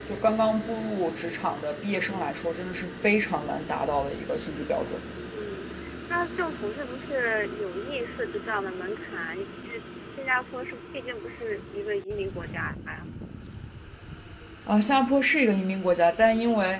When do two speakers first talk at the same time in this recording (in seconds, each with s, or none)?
none